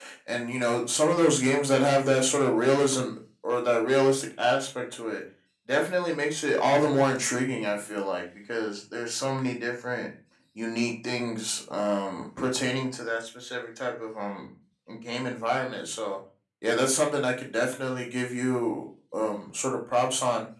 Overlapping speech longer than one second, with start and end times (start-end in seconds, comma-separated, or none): none